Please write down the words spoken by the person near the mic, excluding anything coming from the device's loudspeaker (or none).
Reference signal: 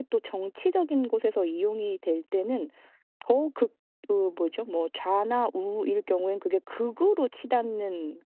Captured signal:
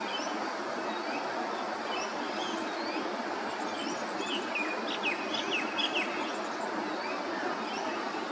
none